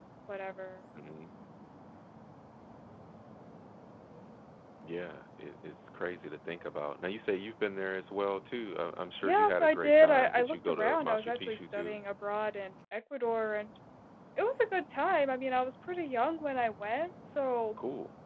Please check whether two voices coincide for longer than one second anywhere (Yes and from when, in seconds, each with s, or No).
Yes, from 9.2 s